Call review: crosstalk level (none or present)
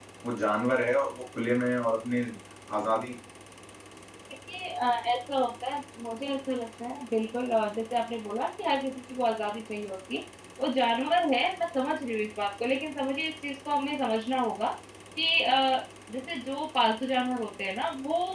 none